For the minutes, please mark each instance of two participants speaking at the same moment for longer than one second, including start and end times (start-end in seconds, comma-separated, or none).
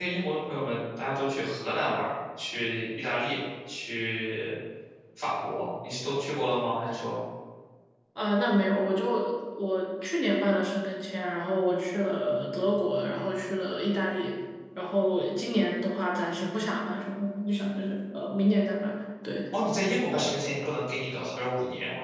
none